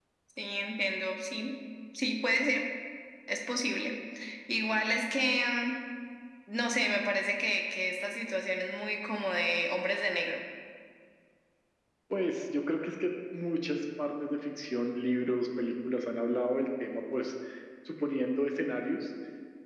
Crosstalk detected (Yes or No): No